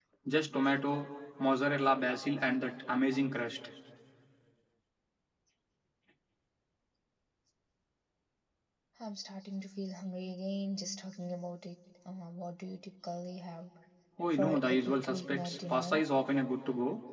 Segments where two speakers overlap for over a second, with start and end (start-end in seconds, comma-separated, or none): 14.3-16.0